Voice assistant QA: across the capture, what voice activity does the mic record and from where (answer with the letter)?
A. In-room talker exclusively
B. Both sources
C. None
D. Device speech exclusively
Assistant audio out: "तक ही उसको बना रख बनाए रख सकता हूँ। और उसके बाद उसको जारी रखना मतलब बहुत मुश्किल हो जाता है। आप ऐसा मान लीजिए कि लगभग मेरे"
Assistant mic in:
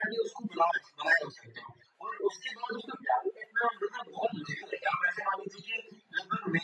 D